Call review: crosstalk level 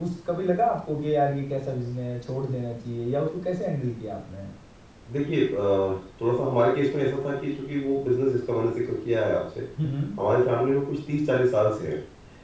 none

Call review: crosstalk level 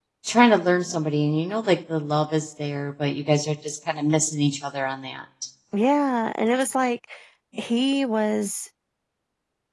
none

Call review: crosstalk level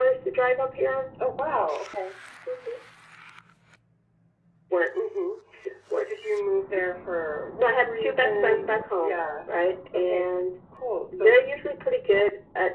present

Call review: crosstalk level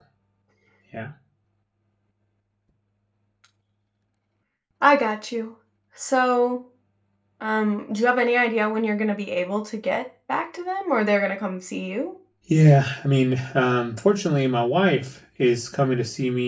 none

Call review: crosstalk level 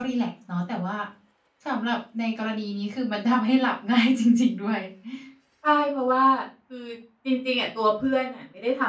none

